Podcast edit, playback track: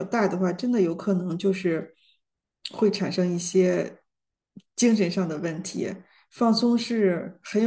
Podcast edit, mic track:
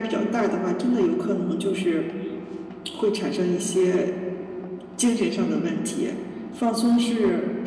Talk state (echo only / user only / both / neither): echo only